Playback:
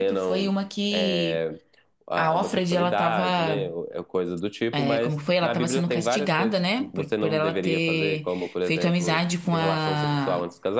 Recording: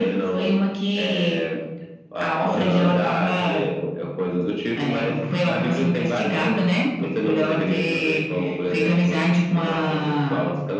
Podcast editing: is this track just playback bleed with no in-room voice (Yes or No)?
No